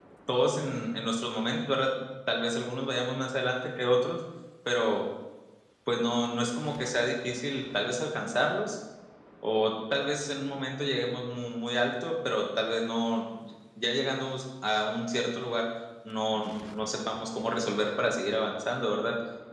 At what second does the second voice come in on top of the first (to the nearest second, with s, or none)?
none